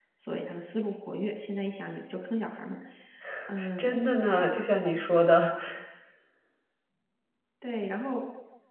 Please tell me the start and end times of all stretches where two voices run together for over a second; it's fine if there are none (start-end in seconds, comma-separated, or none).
none